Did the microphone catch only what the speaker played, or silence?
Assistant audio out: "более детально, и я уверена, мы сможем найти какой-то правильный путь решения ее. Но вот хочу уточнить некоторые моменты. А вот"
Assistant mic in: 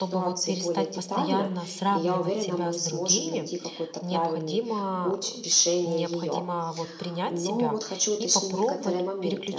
No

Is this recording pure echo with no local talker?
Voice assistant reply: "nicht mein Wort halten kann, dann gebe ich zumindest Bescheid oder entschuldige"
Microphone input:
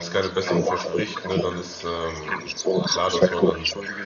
No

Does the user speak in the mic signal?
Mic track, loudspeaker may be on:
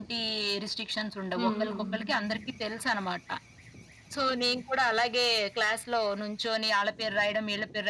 Yes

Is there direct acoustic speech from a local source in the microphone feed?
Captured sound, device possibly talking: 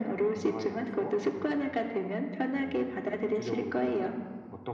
No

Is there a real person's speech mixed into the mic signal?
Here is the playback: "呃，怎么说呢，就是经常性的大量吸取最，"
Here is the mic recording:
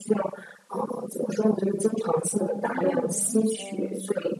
Yes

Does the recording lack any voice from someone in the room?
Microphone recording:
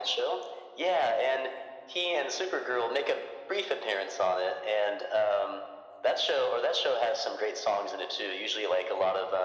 Yes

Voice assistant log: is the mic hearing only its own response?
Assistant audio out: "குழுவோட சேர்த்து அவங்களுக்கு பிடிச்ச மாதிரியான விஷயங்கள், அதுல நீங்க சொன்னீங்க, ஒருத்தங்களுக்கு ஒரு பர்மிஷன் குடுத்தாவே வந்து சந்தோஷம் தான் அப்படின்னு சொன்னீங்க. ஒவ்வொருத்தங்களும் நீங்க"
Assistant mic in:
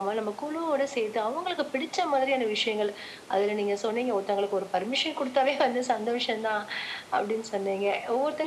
Yes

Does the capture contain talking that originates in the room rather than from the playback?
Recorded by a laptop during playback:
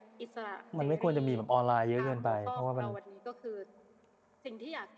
Yes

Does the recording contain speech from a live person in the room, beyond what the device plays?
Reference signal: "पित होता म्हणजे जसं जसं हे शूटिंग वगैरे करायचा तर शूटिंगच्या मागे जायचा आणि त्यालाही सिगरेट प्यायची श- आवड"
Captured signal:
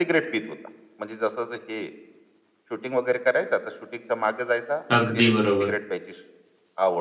Yes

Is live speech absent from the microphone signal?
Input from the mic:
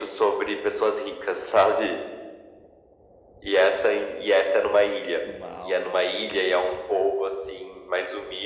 No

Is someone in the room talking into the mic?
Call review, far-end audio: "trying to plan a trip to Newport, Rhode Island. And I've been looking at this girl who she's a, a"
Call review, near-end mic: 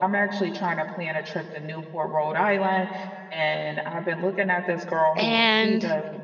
Yes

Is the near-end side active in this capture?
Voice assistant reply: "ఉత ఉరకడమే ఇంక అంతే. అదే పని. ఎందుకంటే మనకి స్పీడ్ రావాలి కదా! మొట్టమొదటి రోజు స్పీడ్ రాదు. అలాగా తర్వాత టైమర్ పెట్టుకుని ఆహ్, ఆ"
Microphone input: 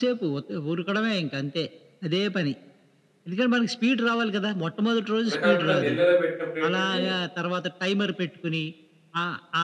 Yes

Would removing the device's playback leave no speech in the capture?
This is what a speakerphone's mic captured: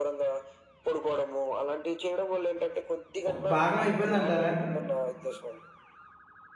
No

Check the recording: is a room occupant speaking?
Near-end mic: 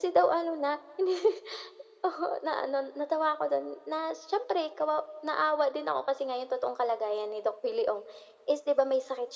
No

